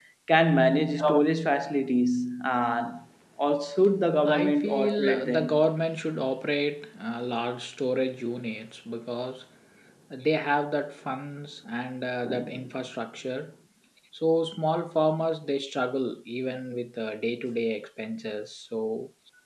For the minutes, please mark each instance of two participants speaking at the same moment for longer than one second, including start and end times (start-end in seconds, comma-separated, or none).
4.2-5.5